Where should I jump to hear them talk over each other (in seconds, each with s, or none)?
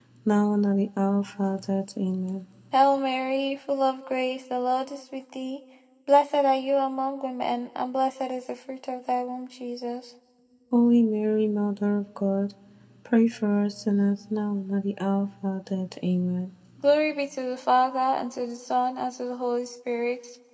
none